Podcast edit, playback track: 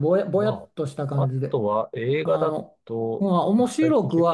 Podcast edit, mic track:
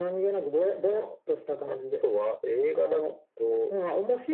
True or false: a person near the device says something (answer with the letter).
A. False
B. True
A